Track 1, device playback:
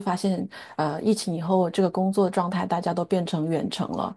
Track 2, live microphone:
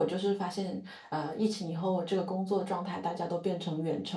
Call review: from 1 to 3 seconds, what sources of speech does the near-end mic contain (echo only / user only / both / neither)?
echo only